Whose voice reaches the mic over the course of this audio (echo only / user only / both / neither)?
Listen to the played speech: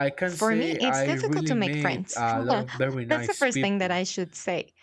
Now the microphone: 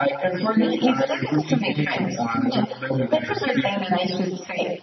echo only